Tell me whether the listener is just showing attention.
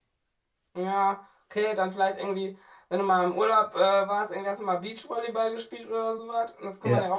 Yes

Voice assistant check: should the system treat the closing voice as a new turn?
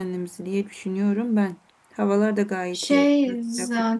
Yes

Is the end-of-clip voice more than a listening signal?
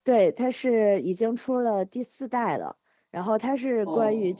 No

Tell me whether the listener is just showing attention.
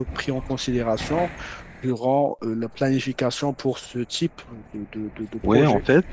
No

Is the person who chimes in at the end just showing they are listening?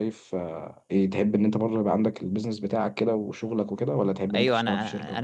No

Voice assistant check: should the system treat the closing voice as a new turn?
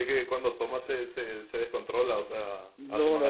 Yes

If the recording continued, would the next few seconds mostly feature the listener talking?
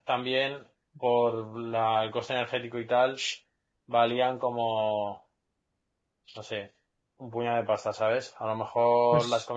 No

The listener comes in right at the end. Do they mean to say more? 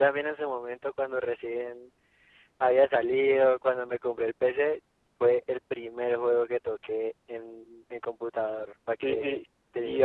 Yes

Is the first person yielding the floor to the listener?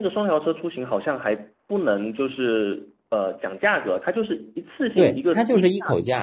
Yes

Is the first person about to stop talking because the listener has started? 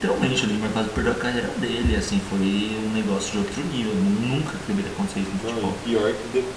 Yes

